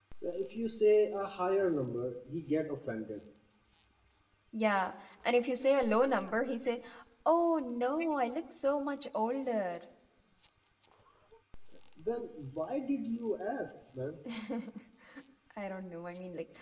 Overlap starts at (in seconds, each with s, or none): none